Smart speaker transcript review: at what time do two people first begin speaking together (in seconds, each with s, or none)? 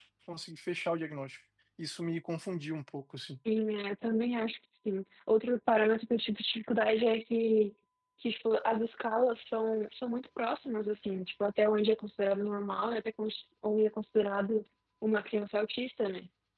none